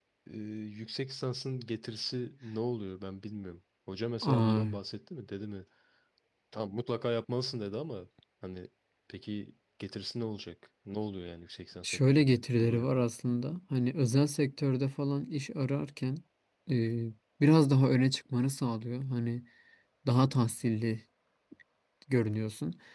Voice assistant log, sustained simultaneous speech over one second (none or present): present